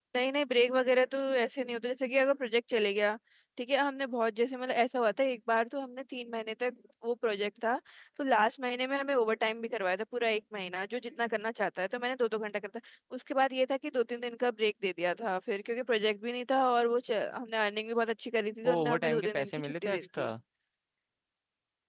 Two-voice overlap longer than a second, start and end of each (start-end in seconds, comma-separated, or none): 18.7-20.3